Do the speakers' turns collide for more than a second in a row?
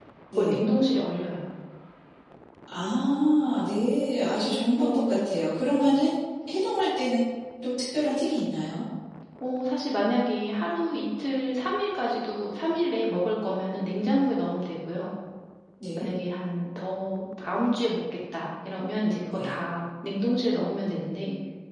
No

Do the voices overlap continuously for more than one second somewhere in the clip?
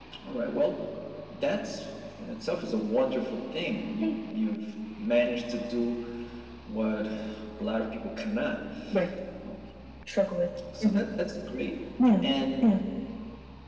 No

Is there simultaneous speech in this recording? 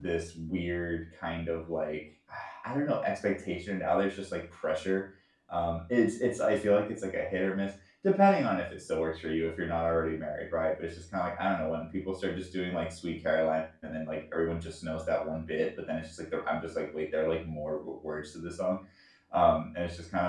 No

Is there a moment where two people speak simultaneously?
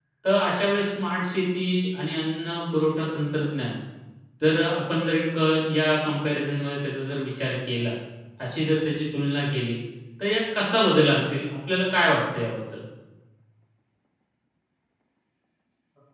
No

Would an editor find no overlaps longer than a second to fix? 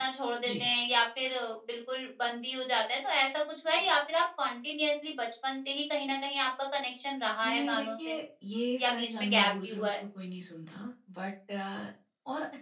No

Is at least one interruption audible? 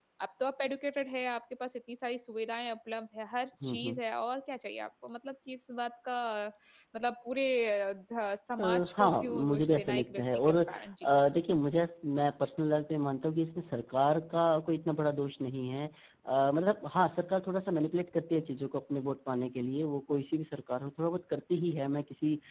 Yes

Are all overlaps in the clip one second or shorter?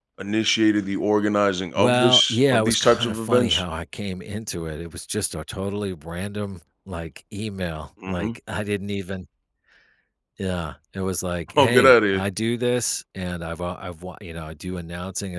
No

